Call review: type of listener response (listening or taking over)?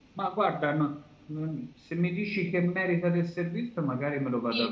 taking over